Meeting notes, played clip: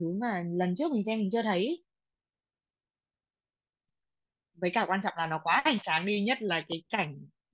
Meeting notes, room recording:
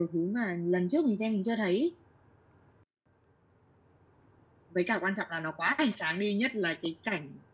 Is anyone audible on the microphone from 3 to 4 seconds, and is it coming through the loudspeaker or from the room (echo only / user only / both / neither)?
neither